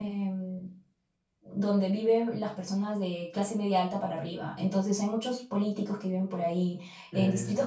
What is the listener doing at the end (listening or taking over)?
listening